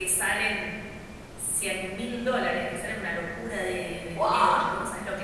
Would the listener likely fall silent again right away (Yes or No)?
Yes